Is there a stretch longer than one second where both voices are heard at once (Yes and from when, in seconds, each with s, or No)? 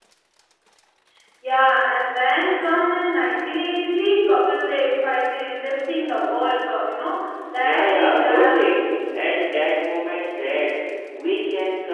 Yes, from 7.5 s